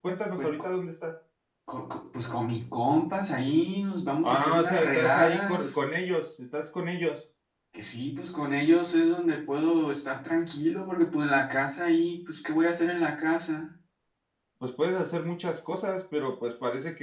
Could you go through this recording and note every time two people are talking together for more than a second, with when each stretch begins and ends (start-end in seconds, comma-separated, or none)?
4.2-5.8